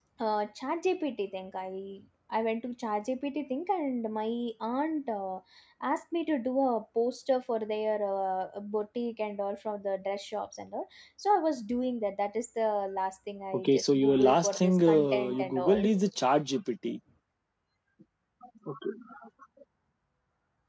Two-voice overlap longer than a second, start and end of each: 13.6-15.9

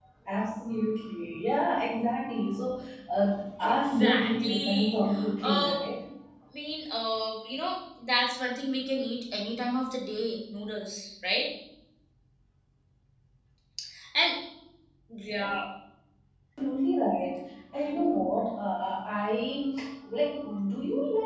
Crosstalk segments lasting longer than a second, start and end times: 3.6-5.0

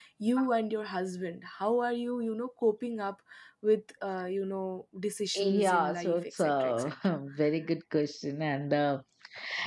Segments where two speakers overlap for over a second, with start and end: 5.3-6.9

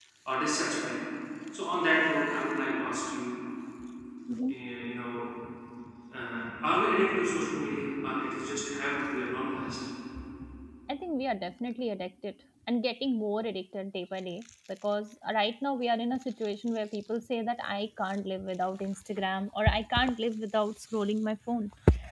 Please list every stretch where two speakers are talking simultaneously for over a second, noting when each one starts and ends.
none

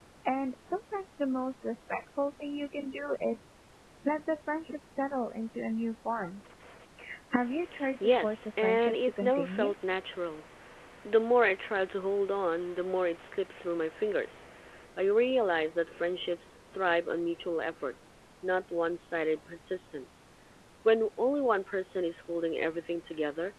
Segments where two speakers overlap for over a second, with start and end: 8.0-9.7

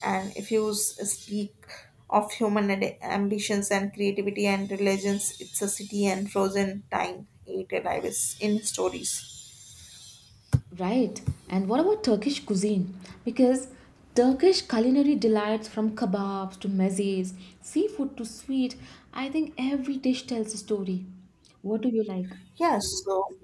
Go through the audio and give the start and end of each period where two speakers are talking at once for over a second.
none

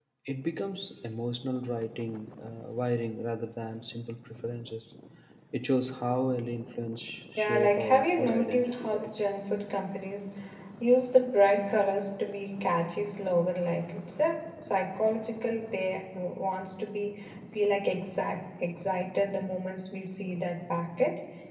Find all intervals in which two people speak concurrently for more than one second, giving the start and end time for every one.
7.4-9.1

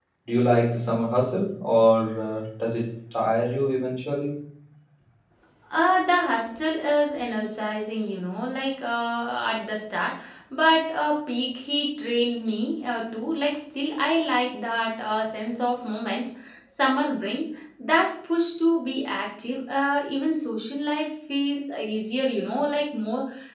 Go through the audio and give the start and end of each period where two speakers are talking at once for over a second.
none

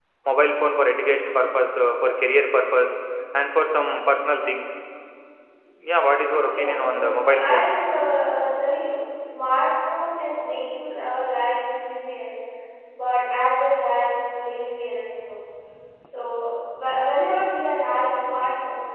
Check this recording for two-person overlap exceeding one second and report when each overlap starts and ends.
6.5-7.8

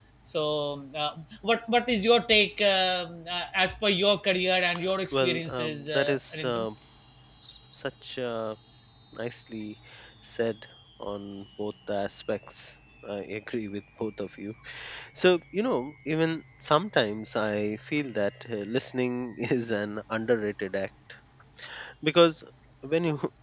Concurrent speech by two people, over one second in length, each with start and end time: 5.1-6.7

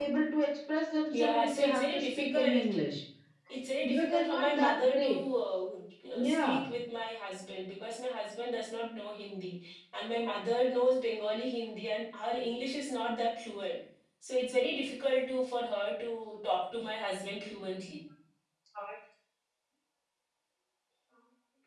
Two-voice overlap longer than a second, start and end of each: 1.1-2.6, 3.8-5.2

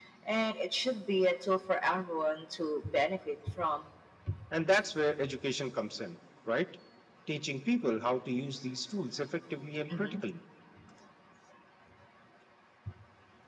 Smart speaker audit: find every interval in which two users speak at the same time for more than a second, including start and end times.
none

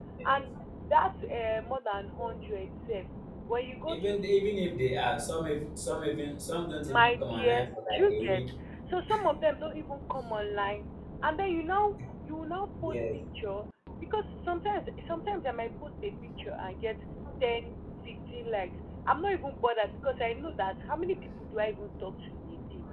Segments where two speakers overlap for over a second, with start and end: 6.8-8.4

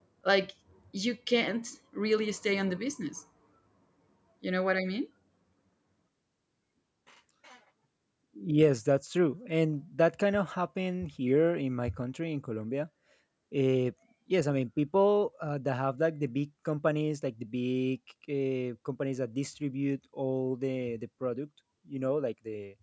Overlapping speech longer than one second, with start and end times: none

